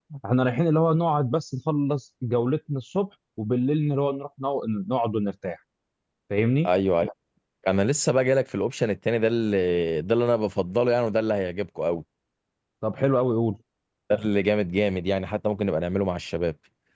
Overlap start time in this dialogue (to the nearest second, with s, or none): none